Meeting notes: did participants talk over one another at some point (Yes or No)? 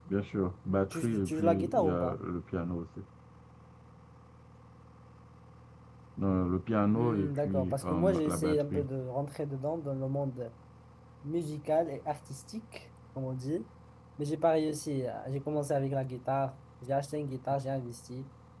Yes